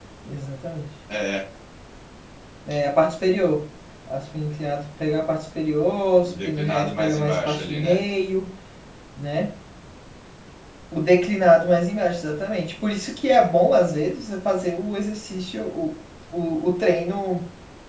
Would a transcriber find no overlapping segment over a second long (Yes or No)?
No